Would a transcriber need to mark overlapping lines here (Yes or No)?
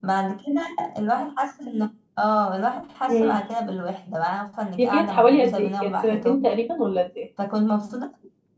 Yes